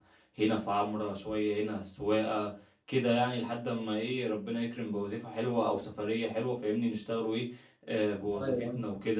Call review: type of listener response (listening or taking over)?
listening